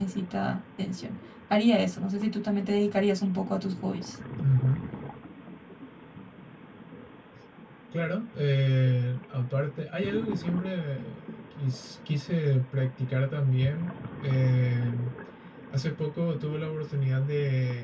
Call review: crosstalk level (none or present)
none